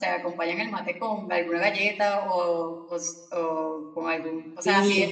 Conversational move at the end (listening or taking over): listening